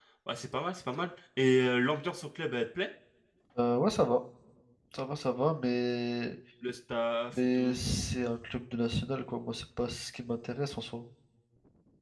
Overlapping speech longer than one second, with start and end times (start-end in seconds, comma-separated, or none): none